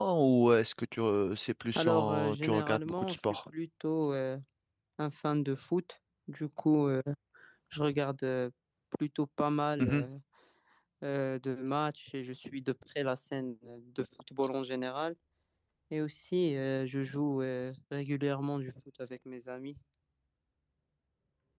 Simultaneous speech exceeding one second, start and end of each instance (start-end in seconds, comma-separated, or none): 1.8-3.4